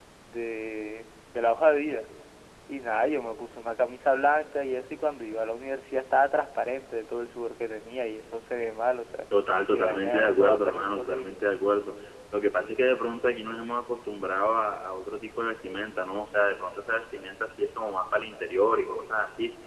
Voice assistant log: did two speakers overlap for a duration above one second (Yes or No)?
Yes